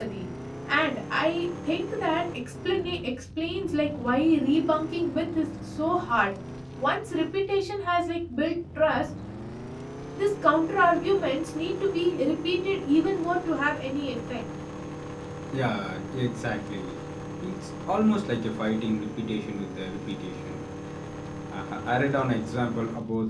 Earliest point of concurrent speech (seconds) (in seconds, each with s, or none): none